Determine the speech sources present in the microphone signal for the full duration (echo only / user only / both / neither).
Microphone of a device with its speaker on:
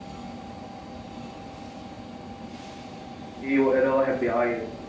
user only